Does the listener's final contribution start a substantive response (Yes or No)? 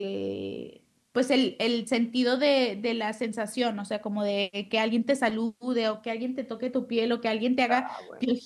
No